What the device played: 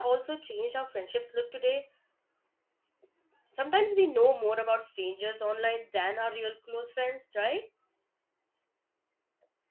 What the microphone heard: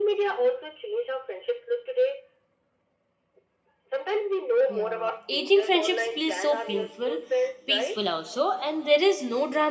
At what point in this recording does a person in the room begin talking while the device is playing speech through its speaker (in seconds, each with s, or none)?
4.7 s